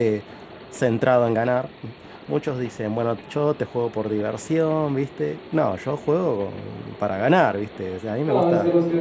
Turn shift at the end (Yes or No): Yes